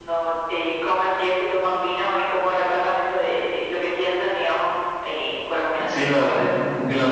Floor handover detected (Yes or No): Yes